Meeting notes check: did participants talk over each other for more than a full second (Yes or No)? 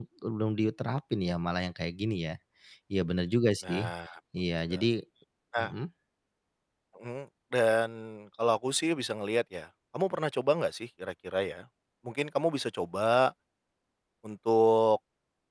No